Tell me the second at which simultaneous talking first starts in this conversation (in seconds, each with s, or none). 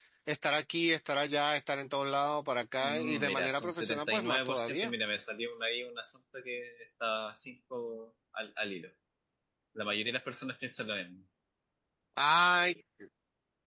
2.8 s